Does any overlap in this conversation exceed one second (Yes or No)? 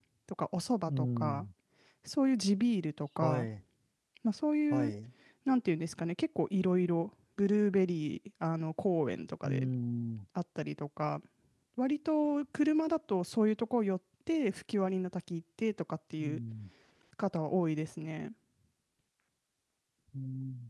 No